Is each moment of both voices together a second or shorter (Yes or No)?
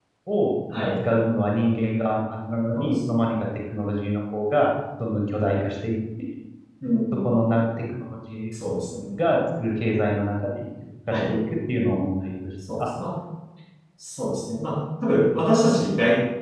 Yes